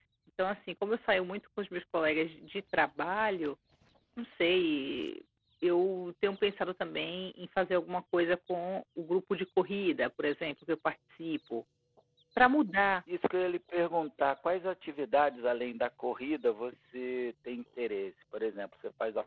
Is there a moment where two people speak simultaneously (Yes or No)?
No